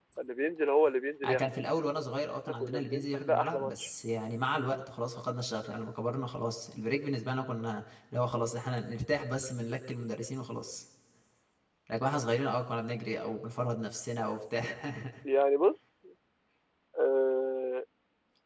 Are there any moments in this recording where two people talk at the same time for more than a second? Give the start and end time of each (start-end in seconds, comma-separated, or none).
2.5-3.9